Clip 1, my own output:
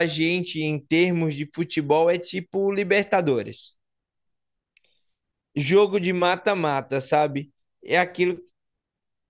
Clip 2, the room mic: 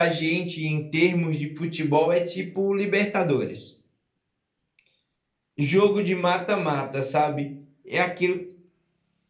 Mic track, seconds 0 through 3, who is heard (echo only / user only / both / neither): echo only